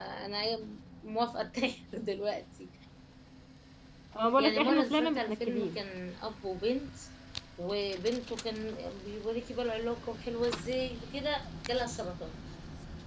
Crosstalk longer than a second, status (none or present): present